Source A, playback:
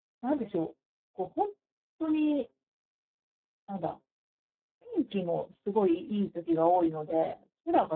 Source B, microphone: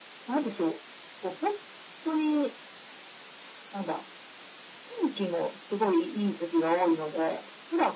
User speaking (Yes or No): No